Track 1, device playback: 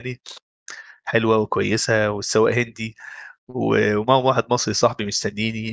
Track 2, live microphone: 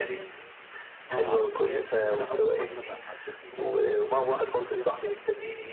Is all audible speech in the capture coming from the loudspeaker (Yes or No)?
No